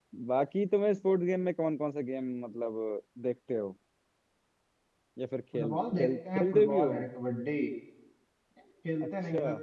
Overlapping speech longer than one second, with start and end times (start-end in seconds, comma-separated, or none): 5.5-6.9